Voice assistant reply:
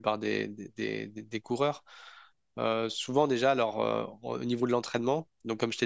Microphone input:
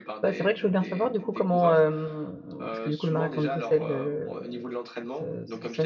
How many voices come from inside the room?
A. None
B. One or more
B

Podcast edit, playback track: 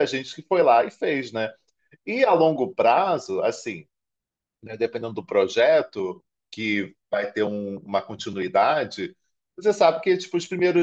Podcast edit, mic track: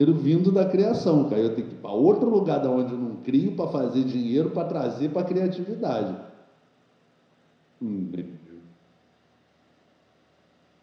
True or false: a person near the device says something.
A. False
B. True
B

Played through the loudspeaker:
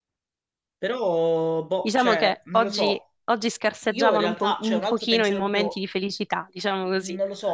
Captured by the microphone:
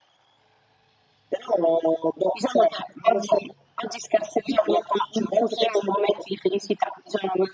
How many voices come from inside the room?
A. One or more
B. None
B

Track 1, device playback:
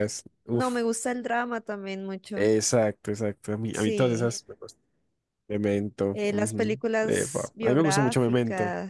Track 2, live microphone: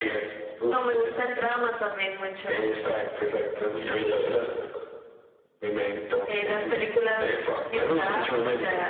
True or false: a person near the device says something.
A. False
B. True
A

